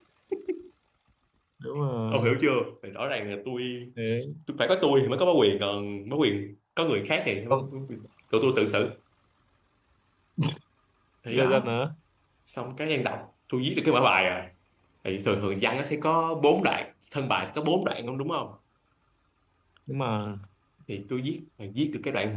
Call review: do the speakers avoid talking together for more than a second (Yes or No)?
Yes